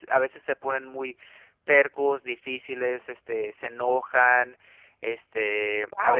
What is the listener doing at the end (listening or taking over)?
taking over